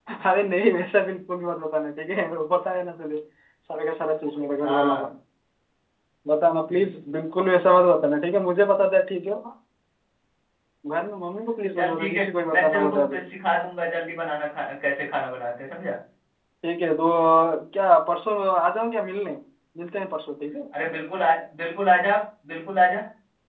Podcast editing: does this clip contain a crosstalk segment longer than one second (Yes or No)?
Yes